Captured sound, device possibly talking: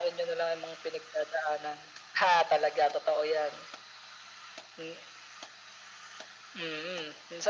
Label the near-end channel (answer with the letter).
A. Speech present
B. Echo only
B